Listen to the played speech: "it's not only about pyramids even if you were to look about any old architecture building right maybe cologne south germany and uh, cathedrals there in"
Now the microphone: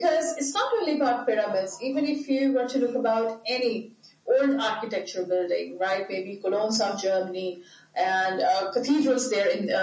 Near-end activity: none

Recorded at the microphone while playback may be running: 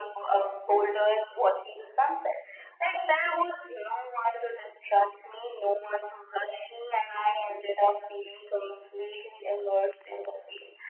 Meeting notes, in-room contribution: none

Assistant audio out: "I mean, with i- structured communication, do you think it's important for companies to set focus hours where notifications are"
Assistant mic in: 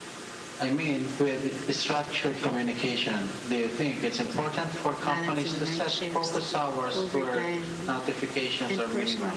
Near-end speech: present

